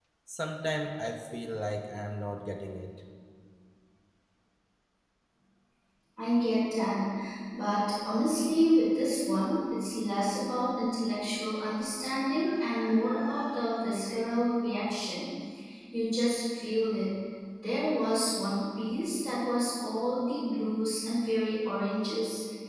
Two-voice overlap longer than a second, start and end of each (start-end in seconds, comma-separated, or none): none